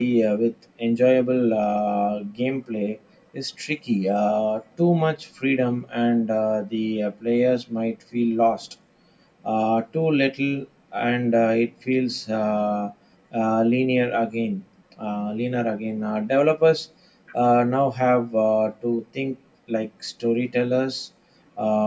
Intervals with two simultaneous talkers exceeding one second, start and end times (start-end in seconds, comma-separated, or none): none